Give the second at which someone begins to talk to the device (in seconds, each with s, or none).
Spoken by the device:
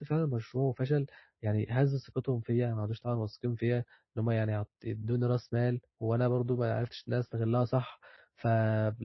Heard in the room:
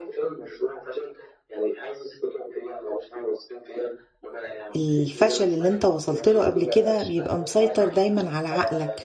4.8 s